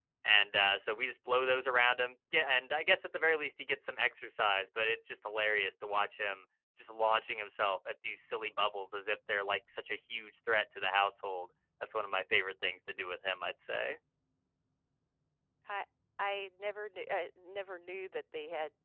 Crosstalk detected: No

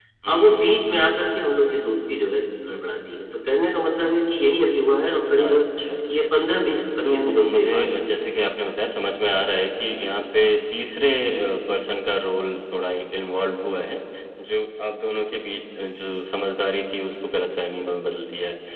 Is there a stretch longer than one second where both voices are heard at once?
Yes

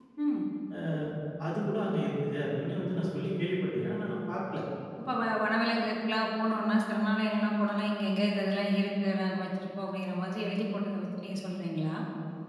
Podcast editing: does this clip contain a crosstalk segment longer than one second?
No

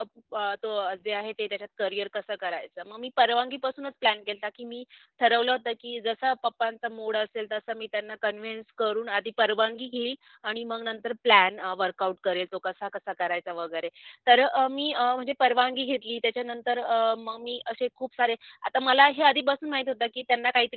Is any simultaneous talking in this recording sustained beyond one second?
No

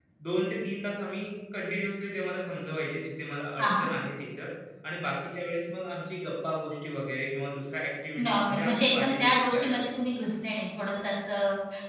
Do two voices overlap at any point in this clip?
Yes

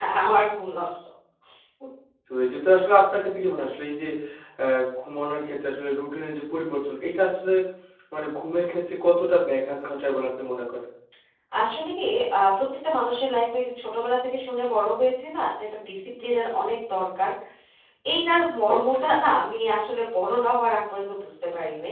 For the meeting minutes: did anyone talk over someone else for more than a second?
No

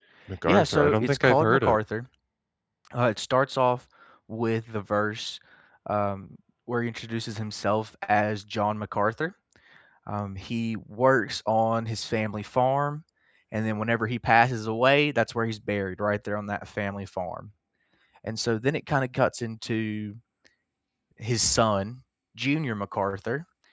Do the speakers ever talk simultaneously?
Yes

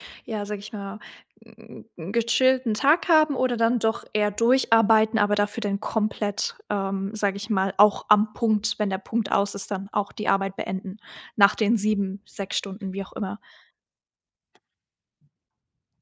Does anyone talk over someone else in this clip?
No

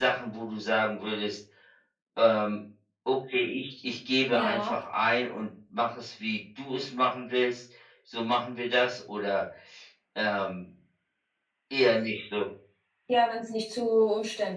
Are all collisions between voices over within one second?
Yes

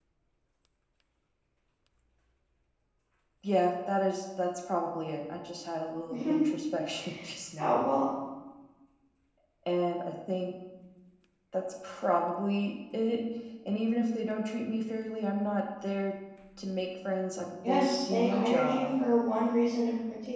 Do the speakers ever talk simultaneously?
Yes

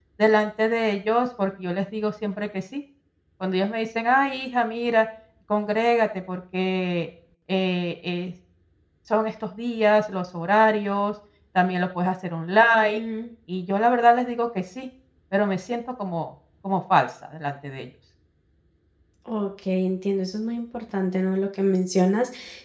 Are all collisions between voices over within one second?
Yes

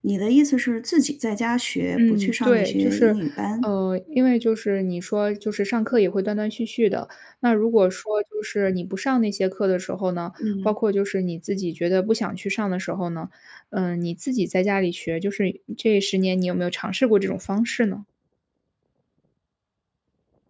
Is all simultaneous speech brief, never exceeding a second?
No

